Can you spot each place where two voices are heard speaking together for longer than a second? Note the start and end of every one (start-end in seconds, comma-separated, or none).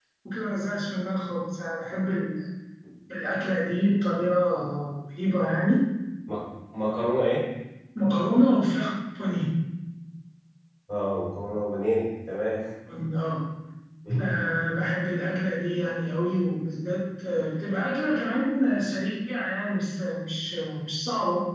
none